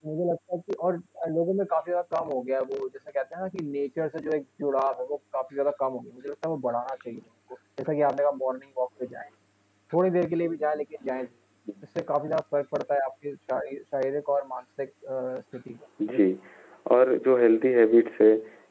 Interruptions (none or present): none